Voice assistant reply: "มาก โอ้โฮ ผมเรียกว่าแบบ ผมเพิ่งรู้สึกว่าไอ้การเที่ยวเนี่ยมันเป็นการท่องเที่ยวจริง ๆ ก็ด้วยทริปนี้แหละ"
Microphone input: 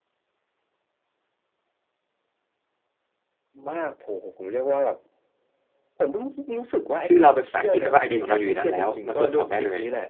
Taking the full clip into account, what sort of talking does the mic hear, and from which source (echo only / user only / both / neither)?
both